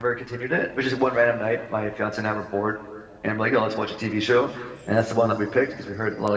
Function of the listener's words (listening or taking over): listening